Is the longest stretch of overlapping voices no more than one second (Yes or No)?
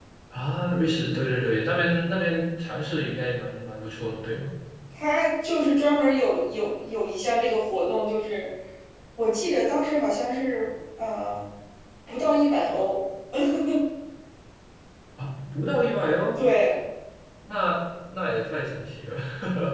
Yes